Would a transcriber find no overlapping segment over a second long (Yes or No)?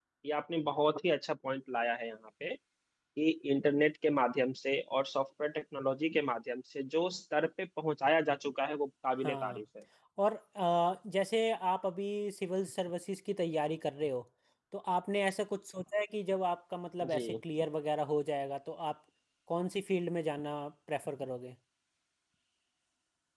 Yes